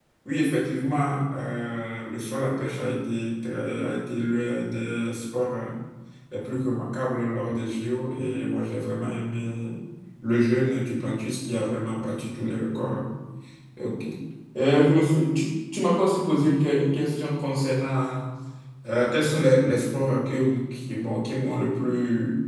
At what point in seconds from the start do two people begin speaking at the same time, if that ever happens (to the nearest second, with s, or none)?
none